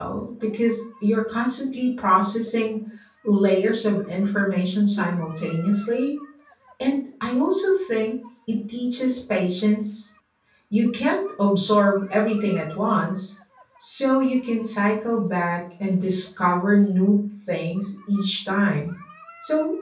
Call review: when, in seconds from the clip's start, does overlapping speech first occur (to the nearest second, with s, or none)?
none